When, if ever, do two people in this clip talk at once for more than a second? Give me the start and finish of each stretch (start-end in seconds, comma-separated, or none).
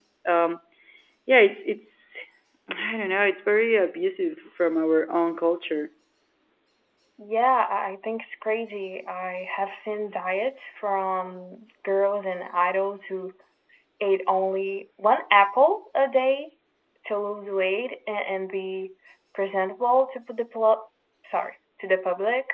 none